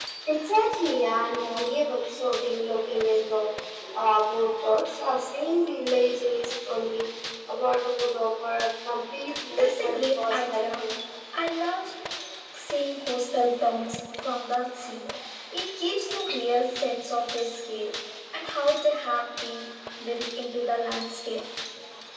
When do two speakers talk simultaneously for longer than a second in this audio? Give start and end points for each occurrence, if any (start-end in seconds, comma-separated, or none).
9.5-10.8